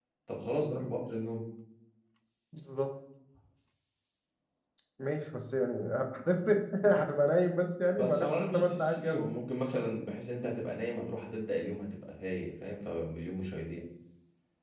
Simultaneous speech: Yes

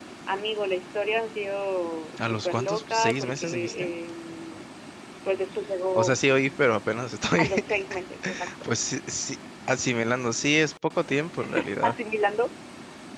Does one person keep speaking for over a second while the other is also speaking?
Yes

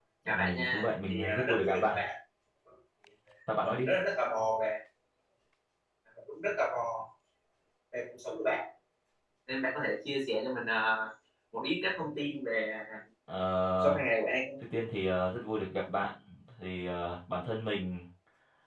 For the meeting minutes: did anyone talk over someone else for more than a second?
Yes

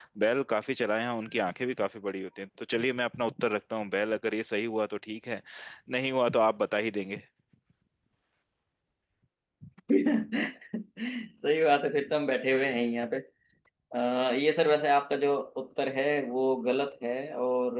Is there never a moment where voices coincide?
Yes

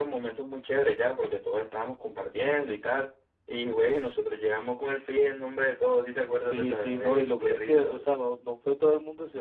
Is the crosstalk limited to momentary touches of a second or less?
No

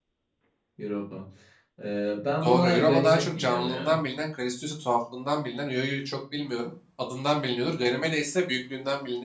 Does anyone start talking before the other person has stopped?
Yes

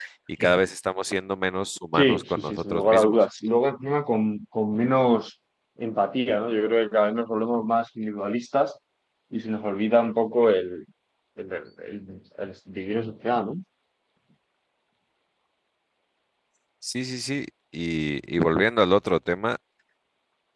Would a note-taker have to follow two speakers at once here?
Yes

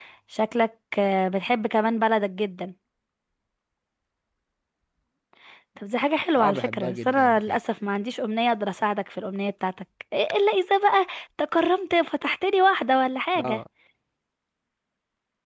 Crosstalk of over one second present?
Yes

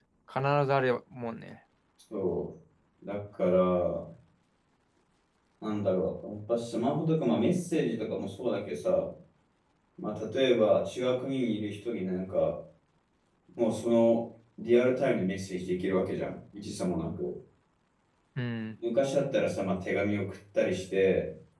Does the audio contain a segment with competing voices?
No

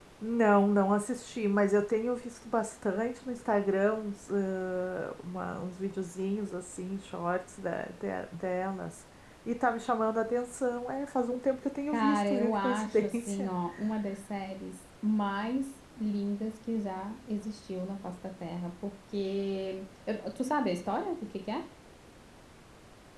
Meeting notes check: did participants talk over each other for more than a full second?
Yes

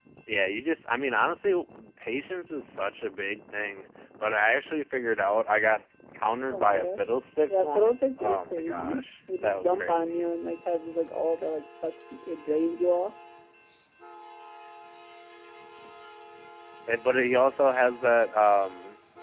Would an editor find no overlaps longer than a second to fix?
No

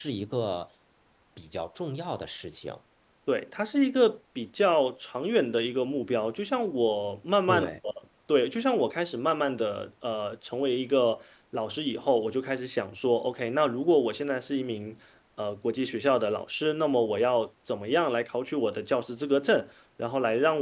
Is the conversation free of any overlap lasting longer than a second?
Yes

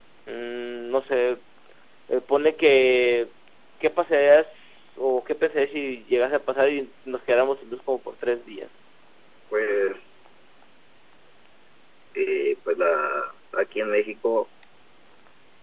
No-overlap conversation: Yes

